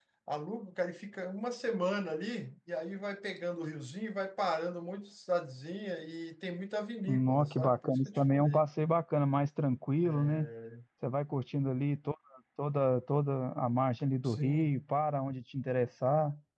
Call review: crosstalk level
present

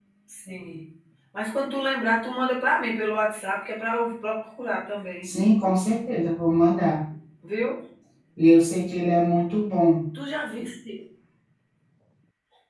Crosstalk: none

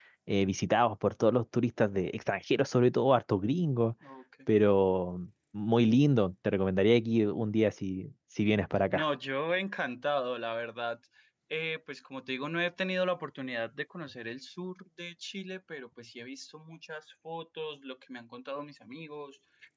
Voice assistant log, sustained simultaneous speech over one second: none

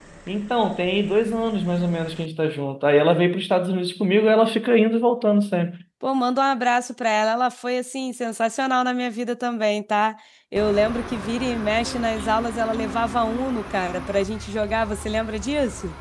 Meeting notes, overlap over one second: none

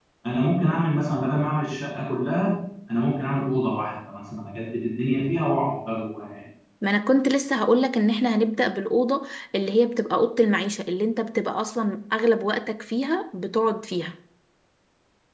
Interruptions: none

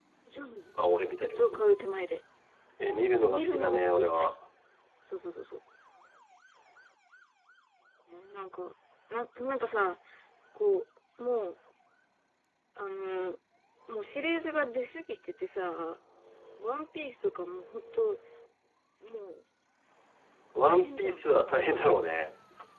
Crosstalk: present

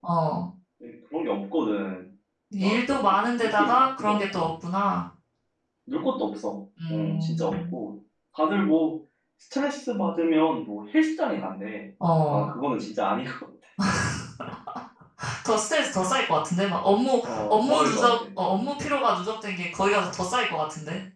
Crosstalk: present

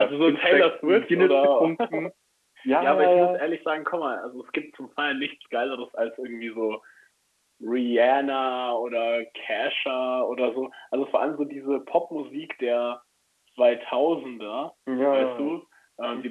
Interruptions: present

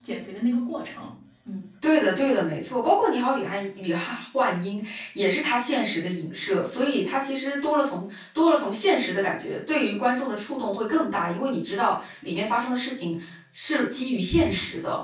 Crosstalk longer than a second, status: none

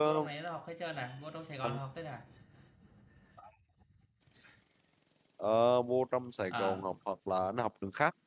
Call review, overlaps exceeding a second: none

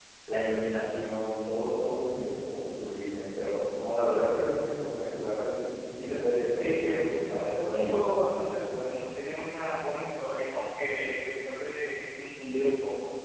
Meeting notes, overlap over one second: present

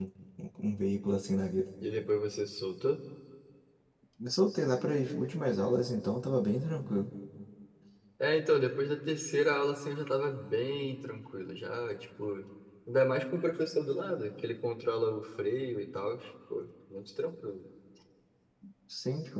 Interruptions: none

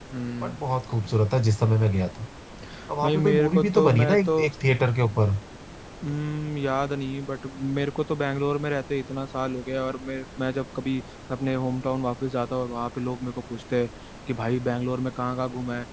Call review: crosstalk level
present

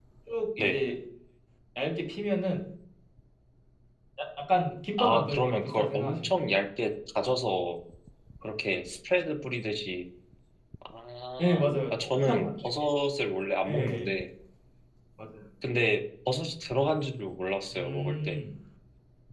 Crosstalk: present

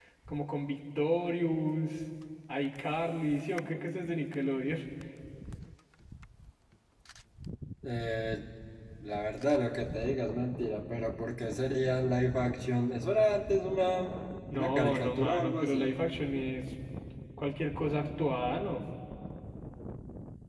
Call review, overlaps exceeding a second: present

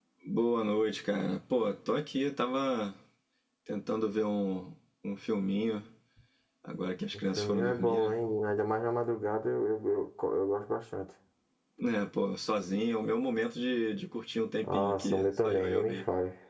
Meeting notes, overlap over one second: present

